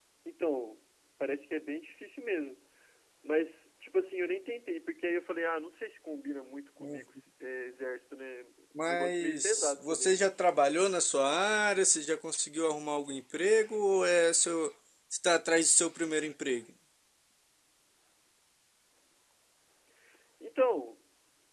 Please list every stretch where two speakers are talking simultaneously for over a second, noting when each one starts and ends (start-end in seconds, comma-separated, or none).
8.8-10.2